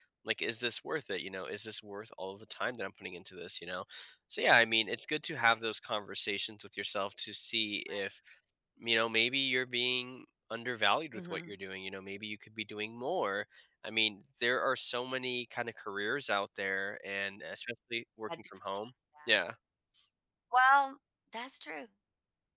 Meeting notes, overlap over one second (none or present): none